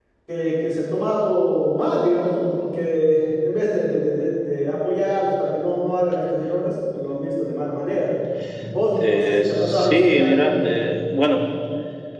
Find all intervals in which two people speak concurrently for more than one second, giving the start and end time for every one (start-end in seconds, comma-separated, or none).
8.9-10.4